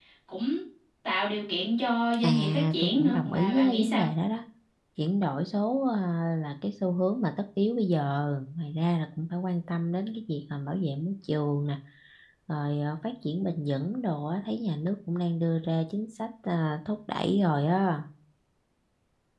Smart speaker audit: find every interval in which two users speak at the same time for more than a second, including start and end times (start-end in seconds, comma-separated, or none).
2.2-4.1